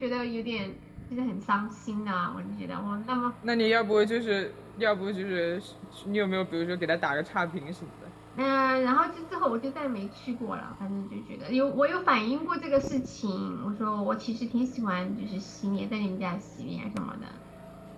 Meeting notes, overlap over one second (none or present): none